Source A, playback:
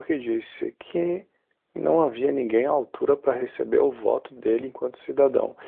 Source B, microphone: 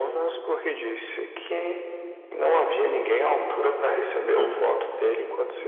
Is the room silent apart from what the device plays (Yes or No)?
No